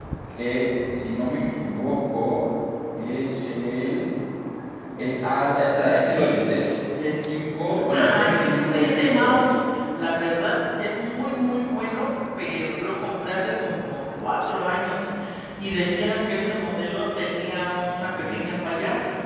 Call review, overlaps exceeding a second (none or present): present